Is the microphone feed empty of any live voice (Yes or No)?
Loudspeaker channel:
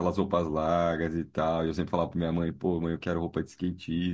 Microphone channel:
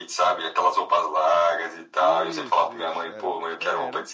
No